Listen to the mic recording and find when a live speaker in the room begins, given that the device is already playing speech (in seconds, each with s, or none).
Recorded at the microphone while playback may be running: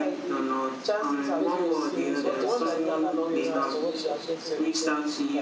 1.4 s